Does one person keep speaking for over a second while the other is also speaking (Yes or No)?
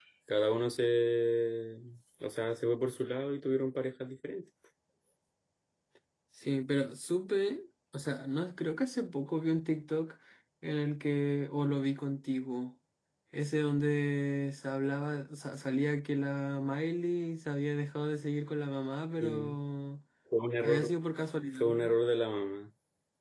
No